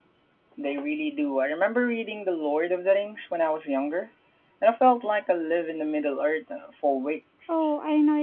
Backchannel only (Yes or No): No